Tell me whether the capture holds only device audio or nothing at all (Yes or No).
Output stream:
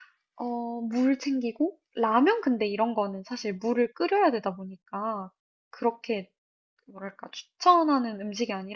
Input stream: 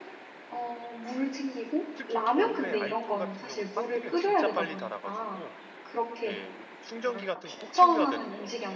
No